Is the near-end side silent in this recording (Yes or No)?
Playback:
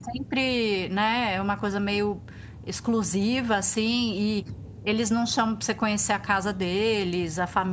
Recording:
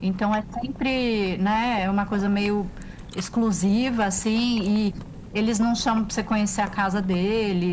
Yes